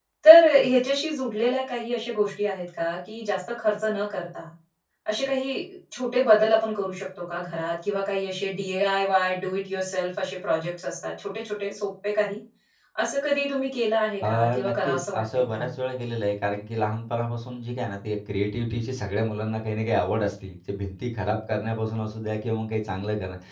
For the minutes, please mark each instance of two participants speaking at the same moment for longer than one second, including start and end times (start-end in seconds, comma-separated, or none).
14.2-15.7